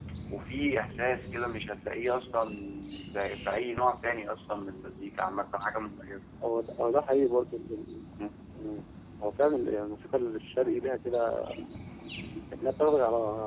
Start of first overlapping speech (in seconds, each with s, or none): none